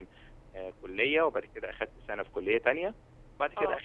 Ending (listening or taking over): listening